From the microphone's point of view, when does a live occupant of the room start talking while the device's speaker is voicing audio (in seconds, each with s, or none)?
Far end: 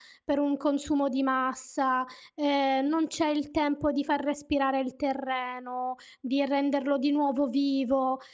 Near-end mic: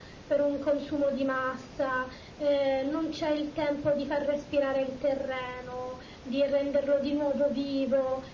none